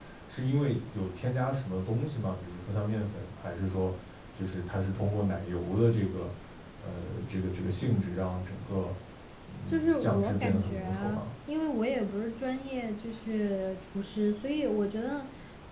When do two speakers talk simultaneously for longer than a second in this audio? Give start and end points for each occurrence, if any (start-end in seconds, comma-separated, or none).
9.7-11.2